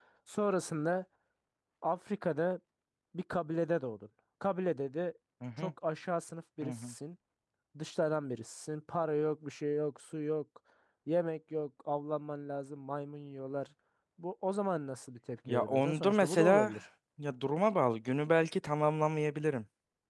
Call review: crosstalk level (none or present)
present